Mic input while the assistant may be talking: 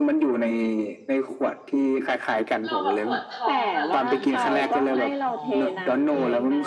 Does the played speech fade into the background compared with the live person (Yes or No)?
No